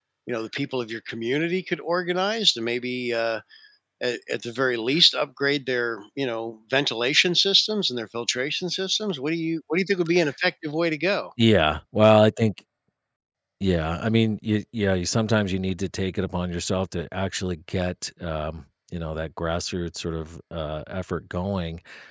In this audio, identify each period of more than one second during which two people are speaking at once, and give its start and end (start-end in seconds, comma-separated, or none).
none